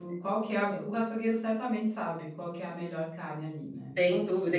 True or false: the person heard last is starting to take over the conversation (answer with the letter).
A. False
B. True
B